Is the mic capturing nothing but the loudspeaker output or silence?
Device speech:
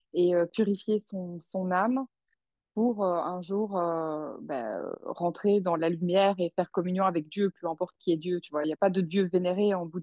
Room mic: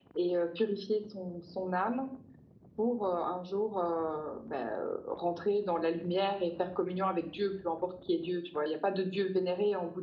Yes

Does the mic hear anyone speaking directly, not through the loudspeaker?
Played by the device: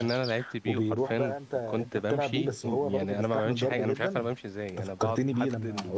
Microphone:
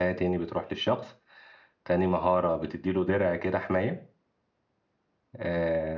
Yes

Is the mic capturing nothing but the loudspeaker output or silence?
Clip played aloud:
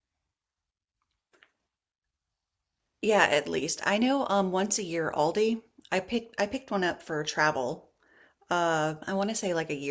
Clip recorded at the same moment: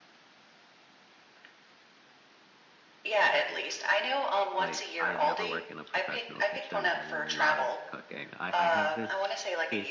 No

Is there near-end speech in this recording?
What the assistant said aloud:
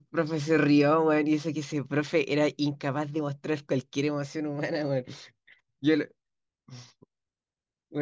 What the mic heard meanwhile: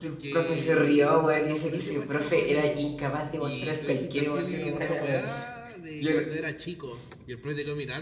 Yes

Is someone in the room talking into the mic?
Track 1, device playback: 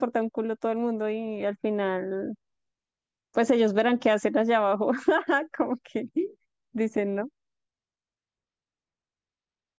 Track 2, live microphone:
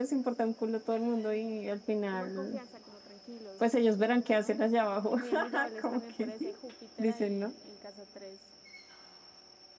Yes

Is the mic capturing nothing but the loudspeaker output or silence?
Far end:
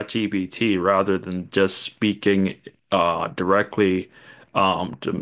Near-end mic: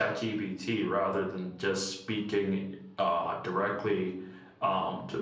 Yes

